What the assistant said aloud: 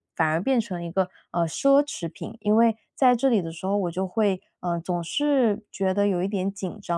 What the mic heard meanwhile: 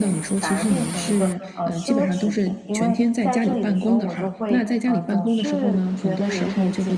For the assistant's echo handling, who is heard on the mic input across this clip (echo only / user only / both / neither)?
both